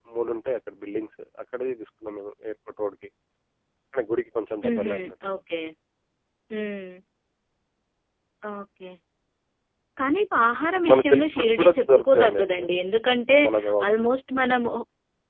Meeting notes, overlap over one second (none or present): present